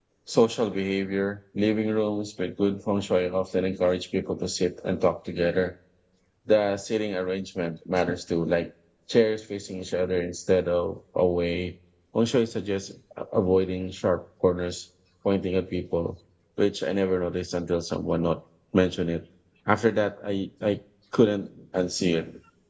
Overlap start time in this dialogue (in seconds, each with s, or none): none